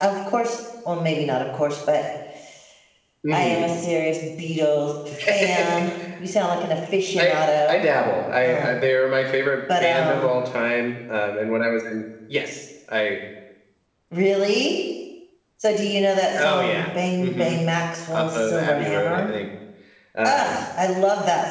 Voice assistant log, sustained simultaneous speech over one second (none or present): present